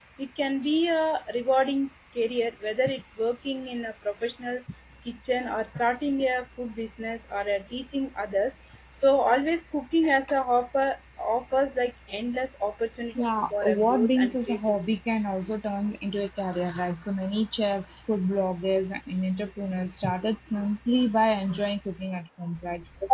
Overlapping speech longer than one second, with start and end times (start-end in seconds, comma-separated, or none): 13.2-14.8